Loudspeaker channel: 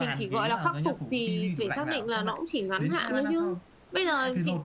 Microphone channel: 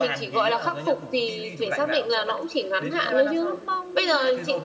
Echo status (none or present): present